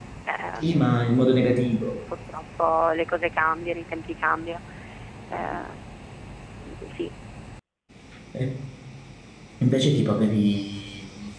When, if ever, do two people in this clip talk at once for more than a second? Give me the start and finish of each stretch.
none

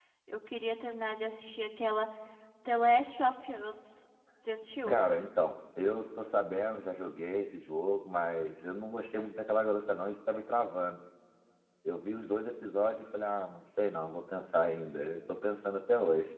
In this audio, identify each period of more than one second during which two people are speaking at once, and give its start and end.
none

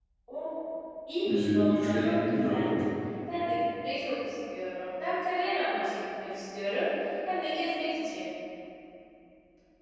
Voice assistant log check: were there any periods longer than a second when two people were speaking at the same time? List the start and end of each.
1.2-2.6

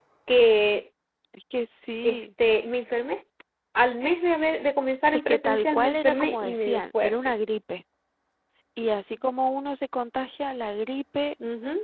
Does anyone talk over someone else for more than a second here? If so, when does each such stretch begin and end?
5.3-7.3

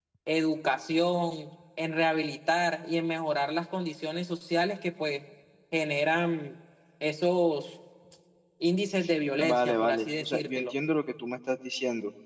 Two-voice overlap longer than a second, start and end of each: 9.4-10.7

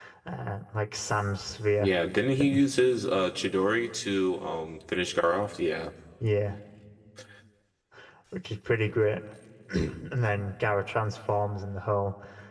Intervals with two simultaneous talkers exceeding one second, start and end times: none

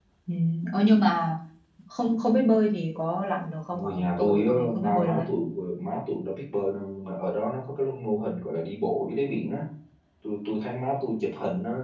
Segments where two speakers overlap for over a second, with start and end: 3.7-5.3

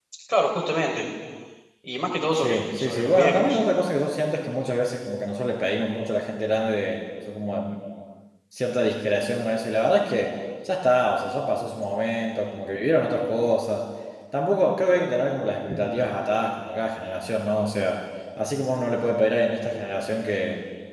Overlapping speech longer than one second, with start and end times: 2.3-3.6

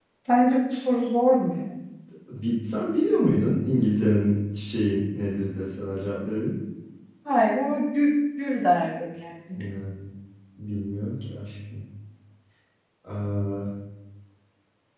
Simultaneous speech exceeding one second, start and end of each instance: none

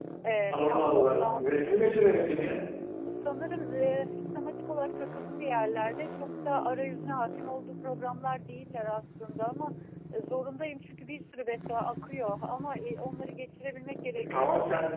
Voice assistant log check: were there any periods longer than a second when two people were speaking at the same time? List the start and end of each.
0.5-1.9

